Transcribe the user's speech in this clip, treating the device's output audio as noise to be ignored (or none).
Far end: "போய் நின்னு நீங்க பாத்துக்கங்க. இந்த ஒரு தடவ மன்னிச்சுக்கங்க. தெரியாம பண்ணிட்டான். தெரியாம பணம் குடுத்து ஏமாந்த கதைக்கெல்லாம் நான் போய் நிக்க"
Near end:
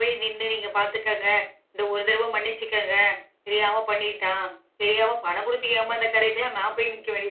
none